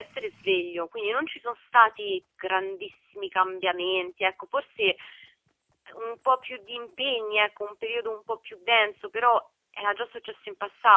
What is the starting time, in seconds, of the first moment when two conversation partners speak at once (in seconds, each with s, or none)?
none